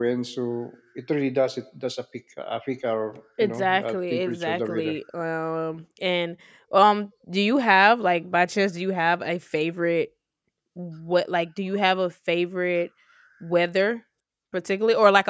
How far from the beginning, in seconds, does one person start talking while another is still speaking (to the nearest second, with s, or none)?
3 s